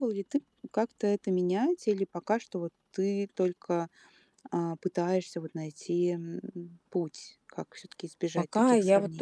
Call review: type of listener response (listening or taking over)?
taking over